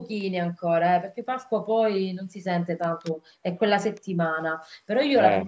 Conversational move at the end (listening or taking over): listening